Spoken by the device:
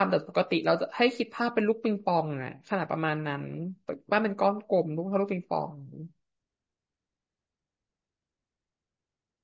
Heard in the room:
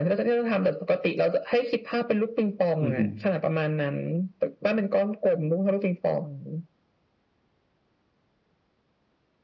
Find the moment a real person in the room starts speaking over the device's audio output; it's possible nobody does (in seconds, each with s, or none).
2.8 s